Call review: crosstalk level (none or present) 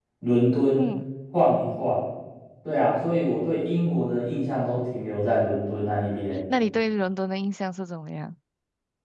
none